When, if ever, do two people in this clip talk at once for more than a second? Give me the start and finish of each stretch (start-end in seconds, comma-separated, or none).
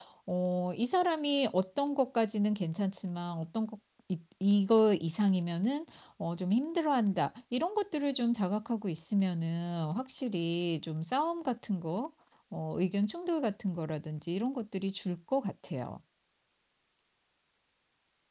none